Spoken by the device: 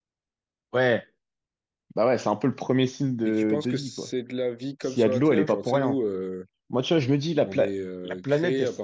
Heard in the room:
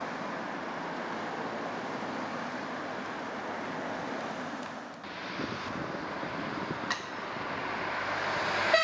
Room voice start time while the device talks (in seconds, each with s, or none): none